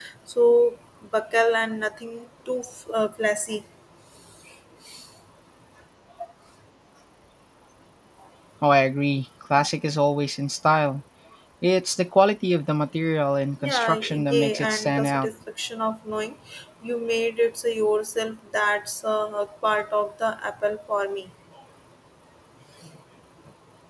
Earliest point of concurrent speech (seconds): 13.6 s

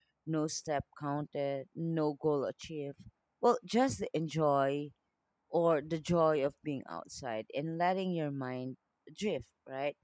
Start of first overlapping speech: none

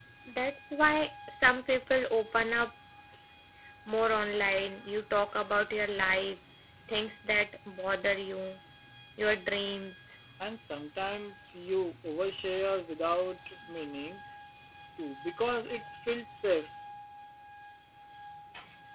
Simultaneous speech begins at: none

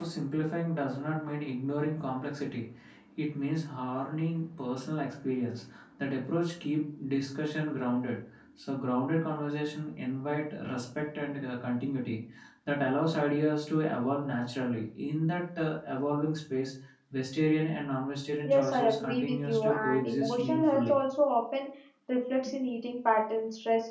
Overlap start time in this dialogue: 18.4 s

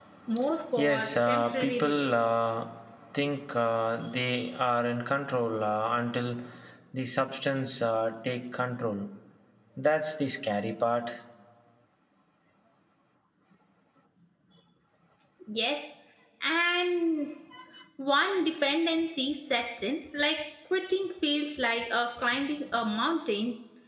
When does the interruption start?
0.8 s

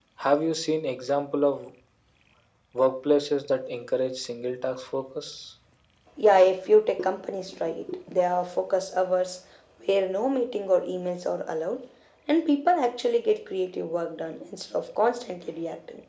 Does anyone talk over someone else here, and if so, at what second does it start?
none

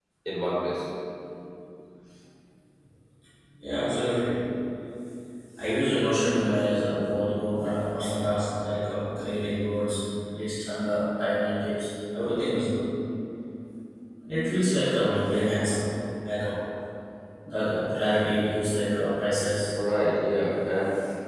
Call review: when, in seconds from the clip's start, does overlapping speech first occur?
none

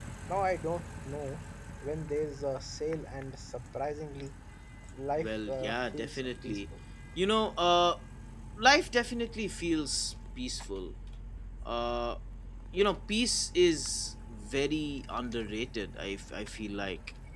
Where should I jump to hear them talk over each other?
5.2 s

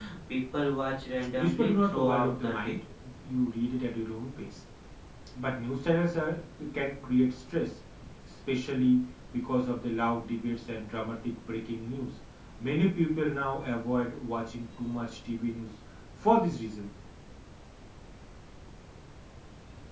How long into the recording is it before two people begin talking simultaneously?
1.3 s

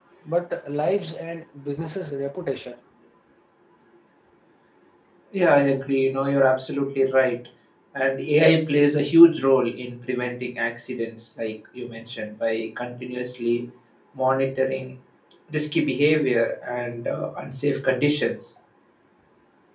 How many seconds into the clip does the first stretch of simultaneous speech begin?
none

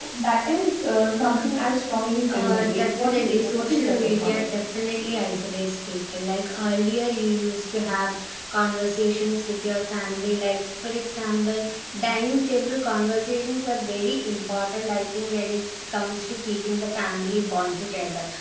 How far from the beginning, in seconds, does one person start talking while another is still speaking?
2.3 s

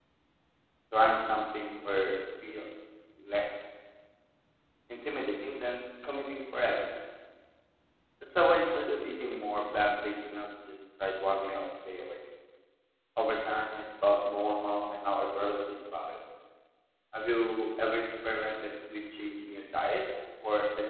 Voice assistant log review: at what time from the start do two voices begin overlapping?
none

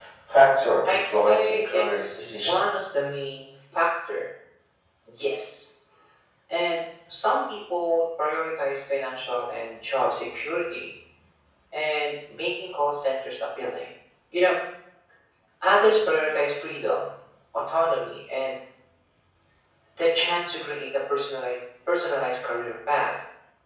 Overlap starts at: 0.8 s

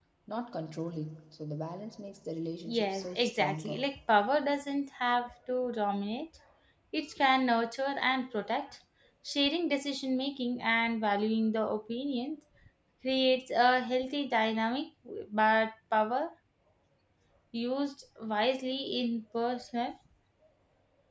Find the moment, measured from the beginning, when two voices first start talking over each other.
2.6 s

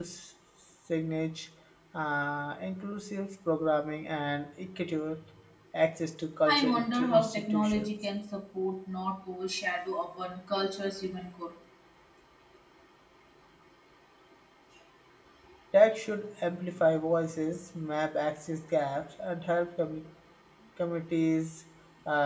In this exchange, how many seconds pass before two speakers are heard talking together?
6.5 s

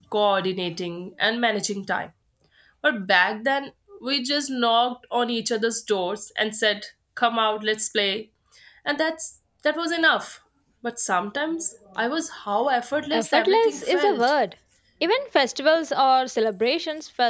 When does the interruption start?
13.1 s

